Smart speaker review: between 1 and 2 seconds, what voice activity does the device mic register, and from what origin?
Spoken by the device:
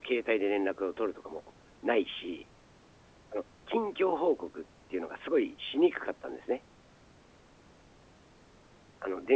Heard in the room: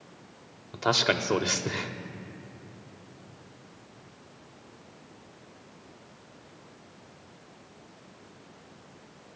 user only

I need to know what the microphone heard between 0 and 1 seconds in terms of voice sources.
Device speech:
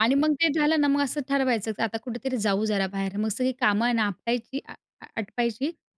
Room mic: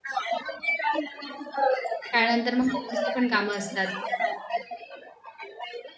echo only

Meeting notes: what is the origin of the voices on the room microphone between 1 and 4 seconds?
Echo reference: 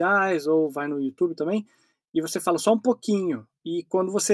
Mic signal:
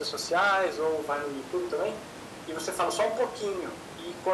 echo only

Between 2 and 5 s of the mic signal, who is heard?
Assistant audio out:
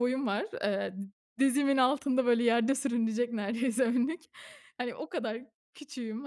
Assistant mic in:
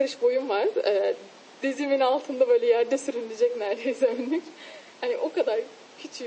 echo only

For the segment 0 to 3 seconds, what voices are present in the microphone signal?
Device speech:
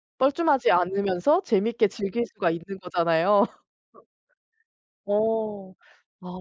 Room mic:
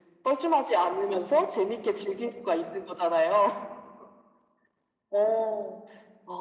echo only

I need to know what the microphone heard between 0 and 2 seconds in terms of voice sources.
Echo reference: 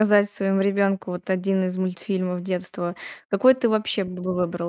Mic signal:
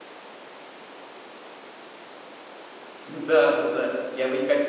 neither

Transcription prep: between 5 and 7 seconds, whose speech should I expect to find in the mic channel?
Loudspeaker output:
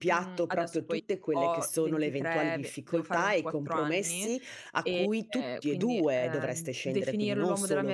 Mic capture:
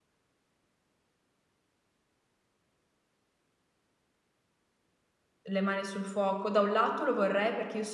user only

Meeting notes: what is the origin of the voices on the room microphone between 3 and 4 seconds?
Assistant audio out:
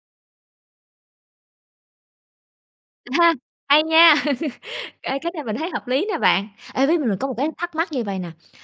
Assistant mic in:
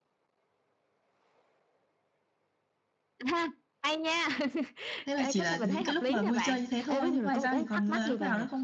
echo only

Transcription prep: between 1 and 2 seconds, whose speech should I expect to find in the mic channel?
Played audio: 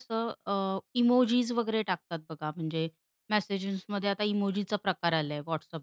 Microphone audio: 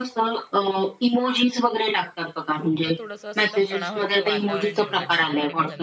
echo only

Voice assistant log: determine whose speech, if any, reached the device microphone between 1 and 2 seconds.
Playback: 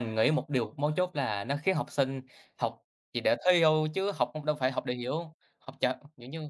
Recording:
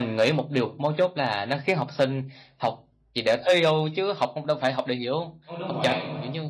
echo only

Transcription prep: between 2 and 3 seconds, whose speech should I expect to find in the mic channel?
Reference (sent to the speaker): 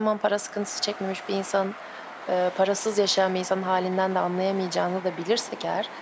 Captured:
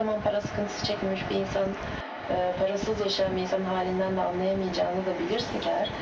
echo only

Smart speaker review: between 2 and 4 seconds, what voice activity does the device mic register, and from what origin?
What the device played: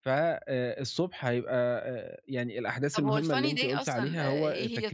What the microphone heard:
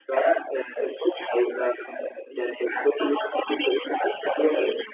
echo only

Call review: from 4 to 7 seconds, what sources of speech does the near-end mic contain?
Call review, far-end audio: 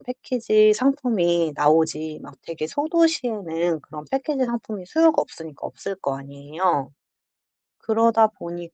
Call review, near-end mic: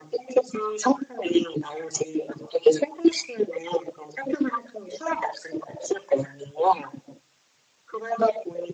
echo only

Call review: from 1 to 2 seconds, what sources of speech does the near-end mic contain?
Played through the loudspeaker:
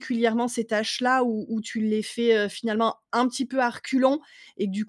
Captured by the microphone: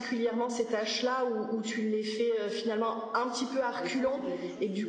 echo only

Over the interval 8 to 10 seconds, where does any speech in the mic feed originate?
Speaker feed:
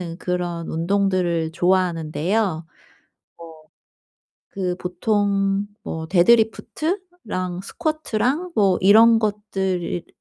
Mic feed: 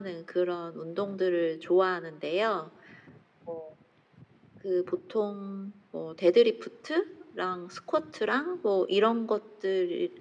echo only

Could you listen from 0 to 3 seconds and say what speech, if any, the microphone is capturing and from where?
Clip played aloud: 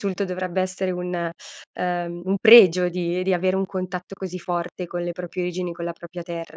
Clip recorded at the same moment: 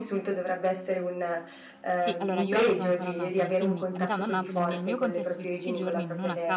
both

